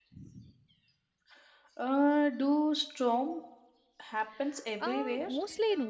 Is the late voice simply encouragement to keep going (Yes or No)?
No